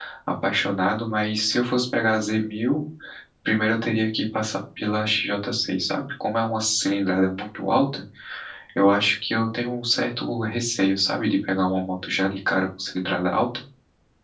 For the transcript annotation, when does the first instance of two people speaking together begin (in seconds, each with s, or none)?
none